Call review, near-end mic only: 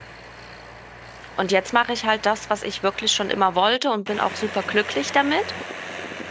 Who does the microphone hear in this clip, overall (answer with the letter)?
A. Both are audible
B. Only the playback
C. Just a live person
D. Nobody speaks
C